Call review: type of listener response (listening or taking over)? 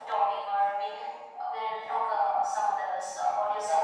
taking over